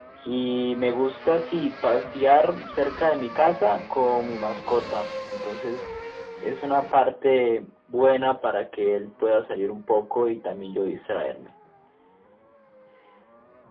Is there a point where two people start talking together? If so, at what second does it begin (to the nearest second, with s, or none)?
none